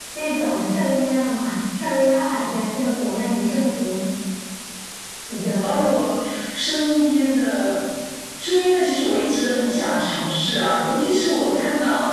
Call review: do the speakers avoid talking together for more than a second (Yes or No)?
Yes